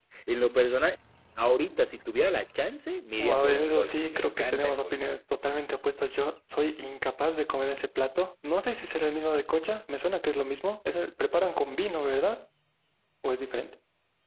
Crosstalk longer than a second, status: present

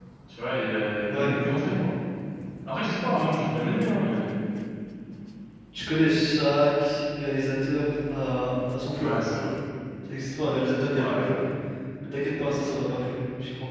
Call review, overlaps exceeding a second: none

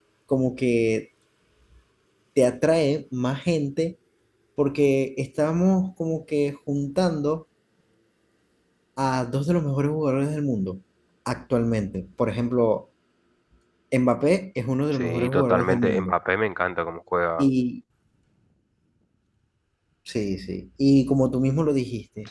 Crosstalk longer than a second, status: present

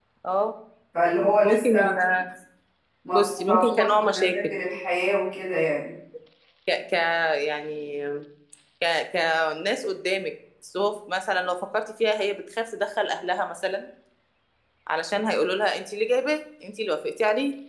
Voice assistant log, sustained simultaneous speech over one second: present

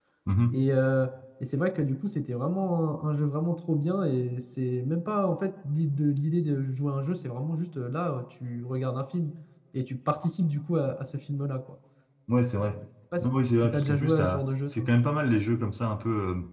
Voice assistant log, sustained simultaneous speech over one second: present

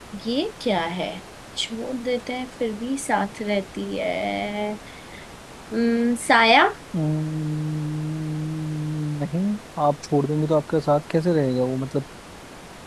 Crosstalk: none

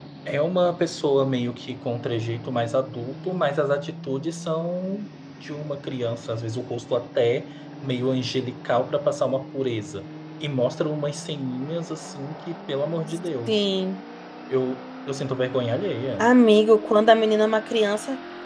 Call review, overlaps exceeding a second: none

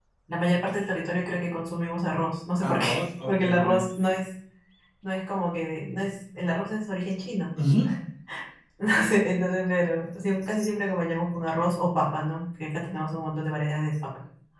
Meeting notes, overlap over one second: present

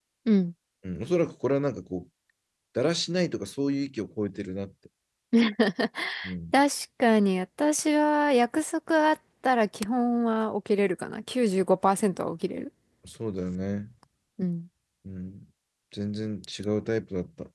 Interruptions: none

